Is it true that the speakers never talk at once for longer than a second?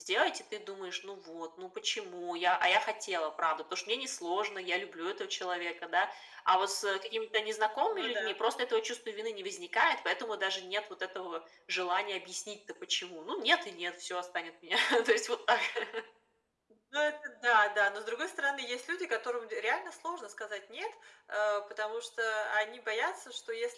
Yes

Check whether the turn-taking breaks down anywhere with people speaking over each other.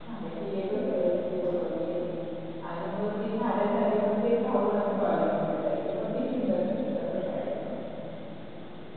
No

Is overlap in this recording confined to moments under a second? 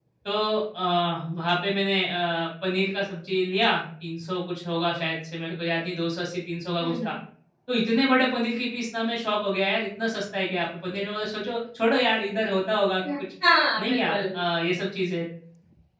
Yes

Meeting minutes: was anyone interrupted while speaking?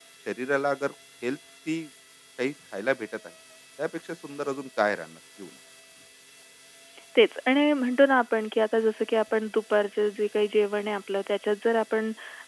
No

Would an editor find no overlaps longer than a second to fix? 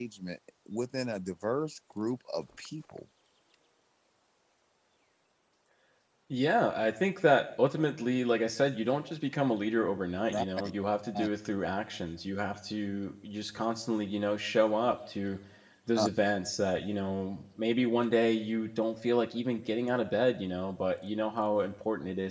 Yes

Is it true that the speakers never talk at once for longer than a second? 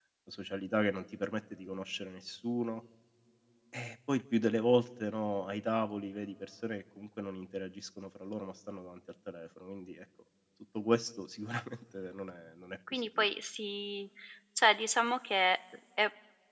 Yes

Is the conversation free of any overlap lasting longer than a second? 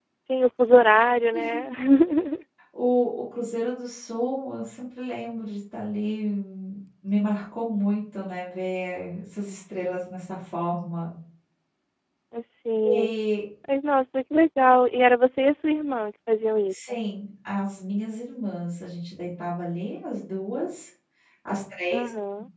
Yes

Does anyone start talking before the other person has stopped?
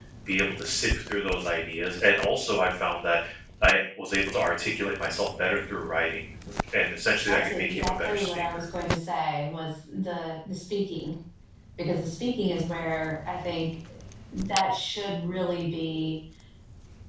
Yes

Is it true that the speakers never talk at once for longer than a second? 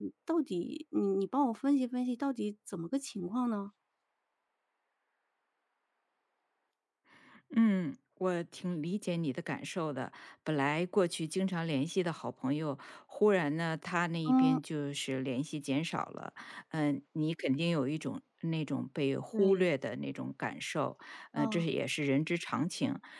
Yes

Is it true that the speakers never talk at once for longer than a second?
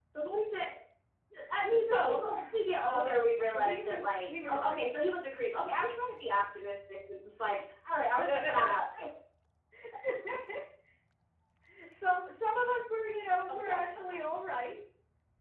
No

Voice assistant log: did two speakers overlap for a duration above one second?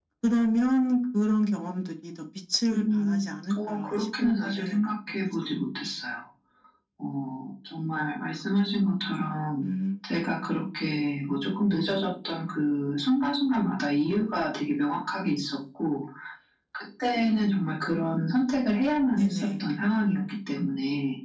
Yes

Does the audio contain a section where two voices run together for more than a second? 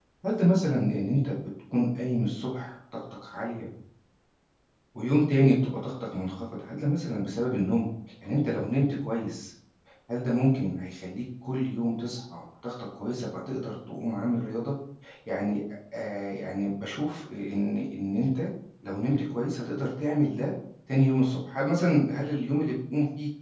No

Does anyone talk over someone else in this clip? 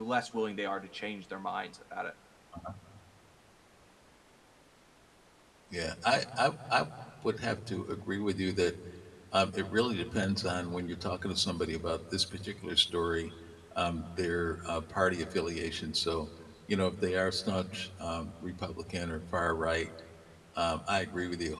No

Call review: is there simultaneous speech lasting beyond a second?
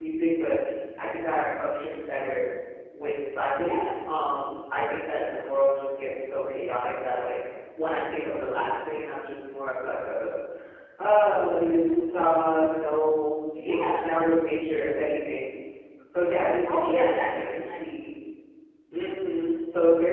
Yes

